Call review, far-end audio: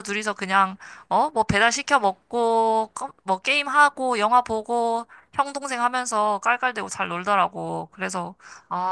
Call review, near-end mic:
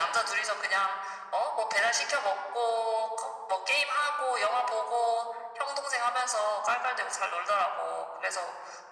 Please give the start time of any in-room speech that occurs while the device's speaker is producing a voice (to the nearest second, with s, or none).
none